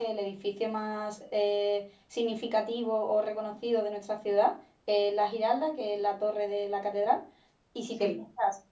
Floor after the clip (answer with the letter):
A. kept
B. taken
A